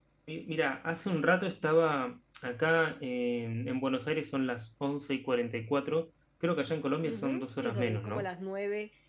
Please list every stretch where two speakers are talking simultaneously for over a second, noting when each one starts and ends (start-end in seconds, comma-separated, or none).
7.0-8.3